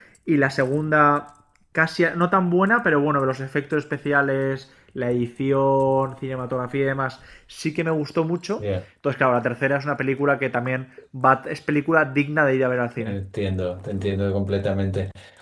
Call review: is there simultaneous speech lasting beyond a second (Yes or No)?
No